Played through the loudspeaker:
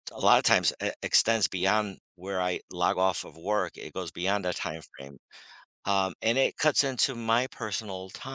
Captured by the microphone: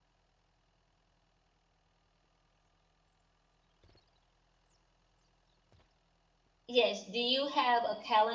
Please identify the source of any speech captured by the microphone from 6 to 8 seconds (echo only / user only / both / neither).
user only